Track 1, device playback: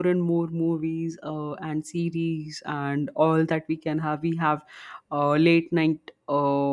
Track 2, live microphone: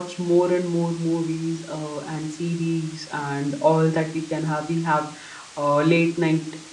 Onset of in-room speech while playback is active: none

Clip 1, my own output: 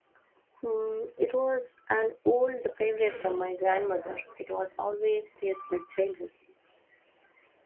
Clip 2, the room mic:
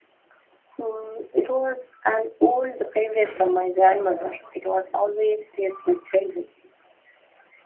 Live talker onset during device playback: none

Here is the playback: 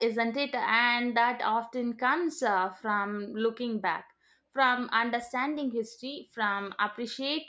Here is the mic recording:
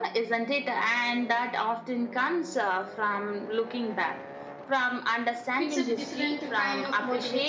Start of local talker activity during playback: 5.6 s

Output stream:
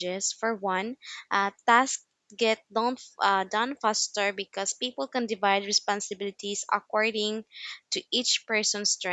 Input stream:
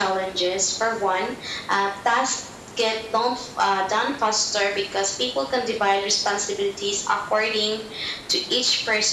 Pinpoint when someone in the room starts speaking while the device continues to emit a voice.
none

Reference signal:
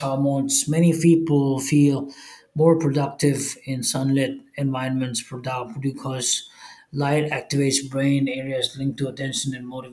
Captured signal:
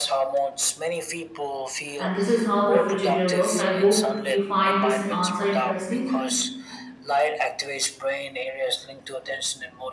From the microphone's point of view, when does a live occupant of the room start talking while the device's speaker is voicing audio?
2.0 s

